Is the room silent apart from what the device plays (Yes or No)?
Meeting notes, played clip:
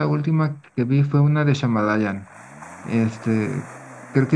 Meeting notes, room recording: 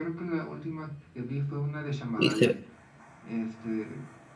No